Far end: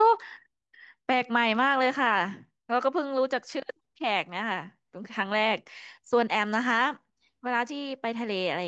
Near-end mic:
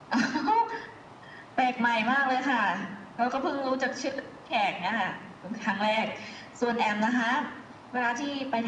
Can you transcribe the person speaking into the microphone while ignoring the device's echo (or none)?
none